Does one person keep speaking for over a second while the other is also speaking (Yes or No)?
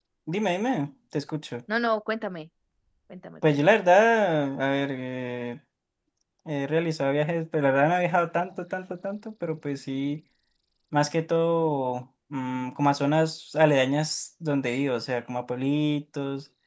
No